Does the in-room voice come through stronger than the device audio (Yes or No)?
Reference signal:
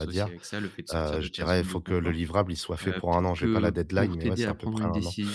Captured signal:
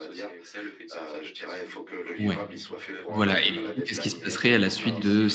Yes